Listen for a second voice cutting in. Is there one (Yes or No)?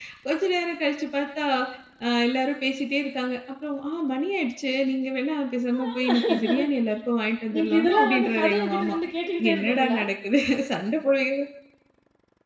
Yes